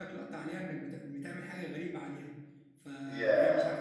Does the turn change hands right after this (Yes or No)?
No